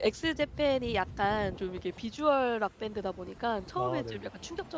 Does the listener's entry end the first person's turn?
No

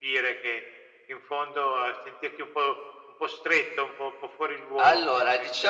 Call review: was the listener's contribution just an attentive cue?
No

